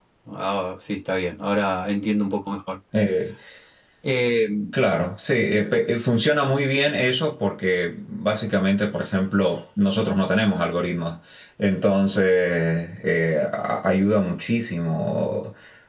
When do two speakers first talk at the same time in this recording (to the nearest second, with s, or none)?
none